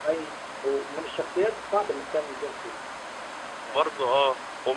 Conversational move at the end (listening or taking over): taking over